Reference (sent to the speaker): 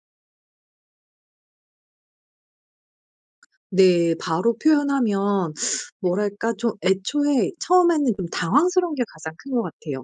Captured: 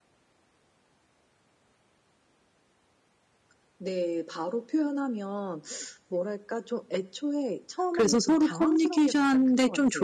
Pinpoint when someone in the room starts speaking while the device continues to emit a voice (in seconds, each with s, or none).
7.9 s